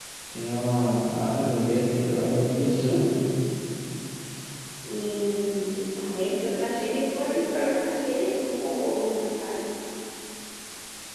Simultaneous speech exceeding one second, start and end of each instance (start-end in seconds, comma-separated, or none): none